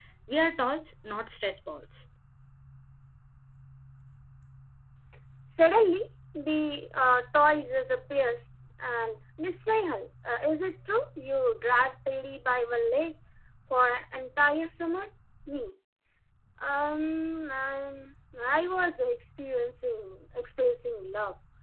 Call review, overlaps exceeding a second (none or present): none